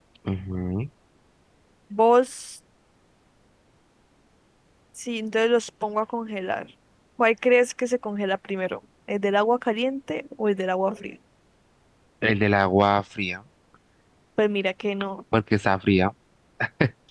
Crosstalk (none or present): none